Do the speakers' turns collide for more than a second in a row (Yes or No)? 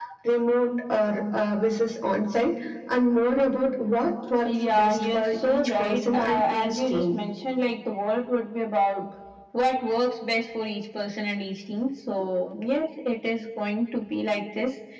Yes